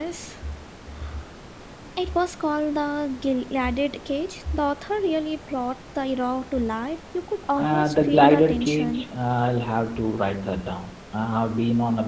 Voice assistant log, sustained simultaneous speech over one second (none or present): present